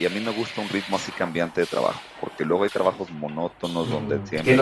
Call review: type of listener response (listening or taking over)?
taking over